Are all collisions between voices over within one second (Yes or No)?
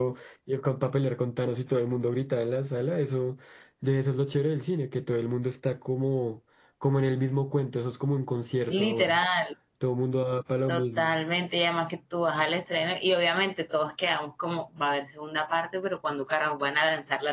Yes